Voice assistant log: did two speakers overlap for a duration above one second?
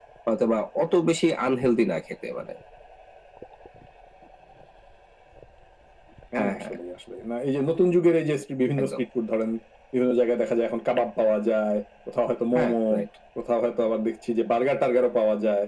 No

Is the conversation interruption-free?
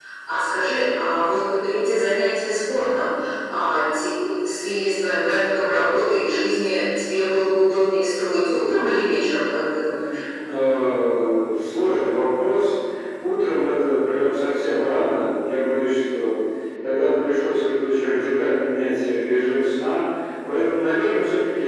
Yes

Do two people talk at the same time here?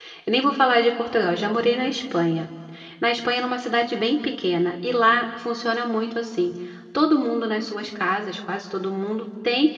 No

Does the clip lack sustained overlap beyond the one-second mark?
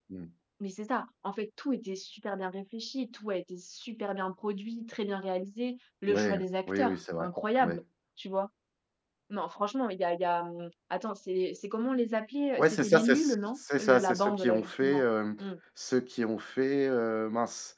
No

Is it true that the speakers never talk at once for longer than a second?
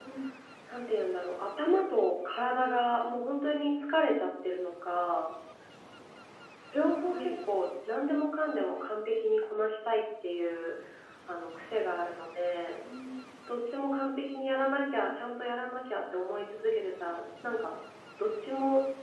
Yes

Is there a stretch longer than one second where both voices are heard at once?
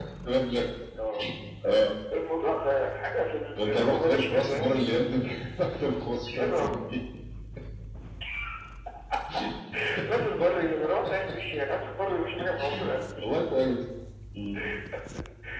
Yes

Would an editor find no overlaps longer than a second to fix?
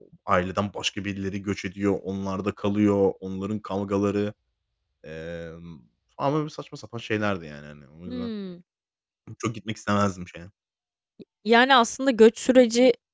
Yes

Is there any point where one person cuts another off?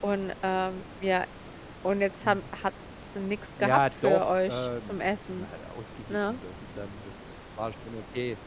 Yes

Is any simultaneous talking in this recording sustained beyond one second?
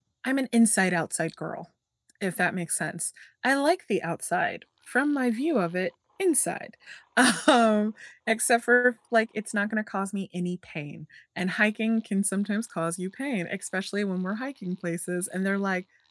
No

